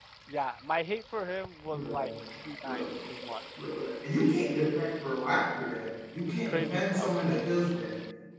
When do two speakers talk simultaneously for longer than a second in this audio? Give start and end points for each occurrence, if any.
6.2-7.5

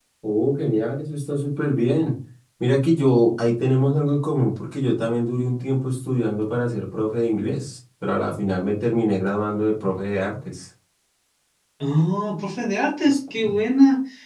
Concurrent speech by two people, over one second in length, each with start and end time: none

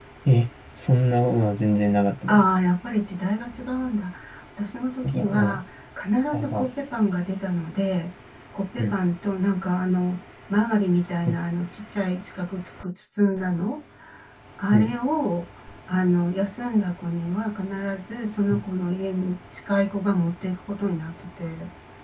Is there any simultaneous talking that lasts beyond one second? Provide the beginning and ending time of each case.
none

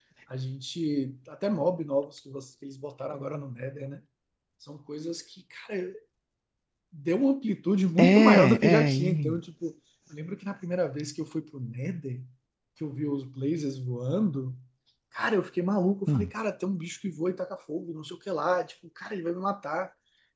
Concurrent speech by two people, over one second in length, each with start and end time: 8.0-9.4

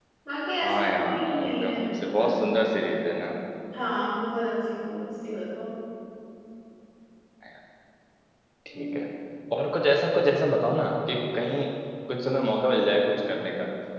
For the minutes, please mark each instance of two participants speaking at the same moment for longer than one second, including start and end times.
0.6-2.3

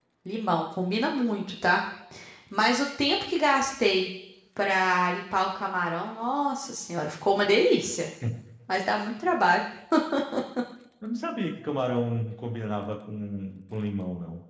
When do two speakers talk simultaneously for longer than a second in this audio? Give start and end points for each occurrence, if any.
none

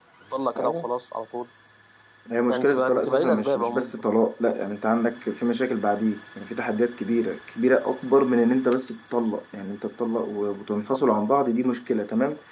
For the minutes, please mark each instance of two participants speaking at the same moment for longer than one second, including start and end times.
2.5-3.9

